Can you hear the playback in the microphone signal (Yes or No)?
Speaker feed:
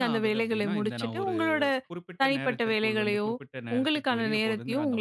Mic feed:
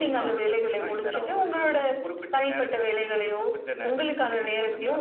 Yes